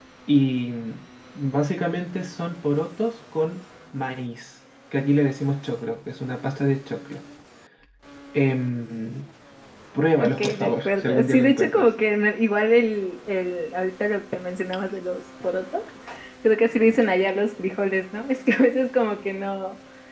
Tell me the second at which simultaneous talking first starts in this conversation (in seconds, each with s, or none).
10.2 s